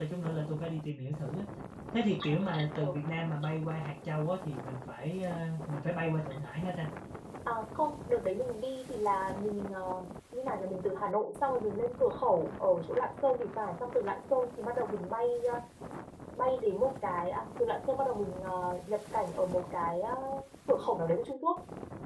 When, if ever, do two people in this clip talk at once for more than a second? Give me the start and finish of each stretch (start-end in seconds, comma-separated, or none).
none